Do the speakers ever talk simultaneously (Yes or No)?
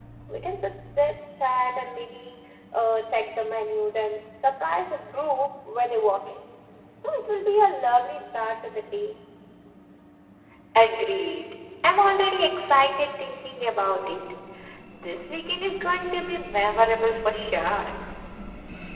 No